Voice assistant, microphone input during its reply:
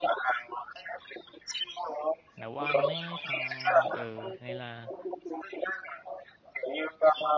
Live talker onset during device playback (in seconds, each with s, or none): 2.4 s